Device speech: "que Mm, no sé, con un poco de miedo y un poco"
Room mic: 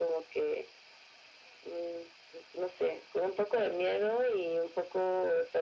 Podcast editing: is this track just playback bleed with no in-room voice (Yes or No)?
Yes